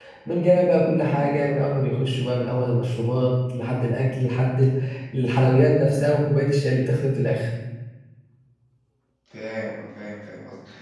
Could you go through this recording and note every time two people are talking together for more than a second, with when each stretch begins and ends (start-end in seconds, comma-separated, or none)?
none